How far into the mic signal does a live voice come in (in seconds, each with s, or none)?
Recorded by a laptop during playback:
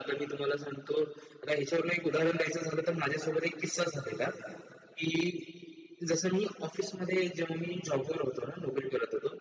none